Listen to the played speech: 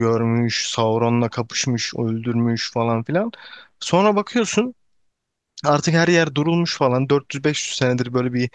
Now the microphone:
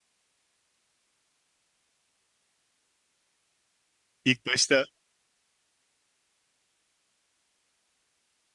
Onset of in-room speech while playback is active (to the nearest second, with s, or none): 4 s